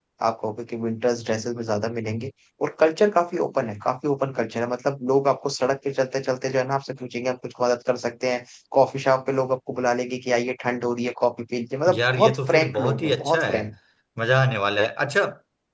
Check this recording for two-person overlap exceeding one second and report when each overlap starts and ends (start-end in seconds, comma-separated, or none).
11.9-13.7